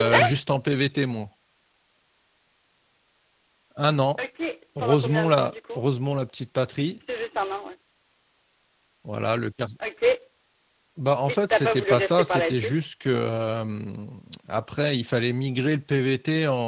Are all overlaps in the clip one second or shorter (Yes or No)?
No